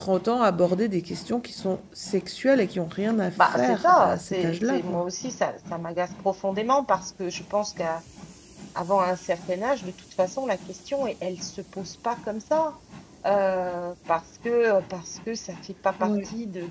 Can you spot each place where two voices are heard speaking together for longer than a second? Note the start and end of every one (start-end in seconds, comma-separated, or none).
3.4-5.0